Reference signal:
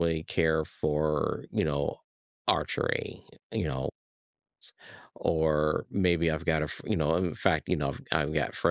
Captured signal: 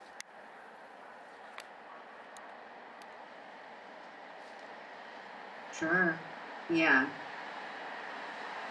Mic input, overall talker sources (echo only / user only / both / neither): user only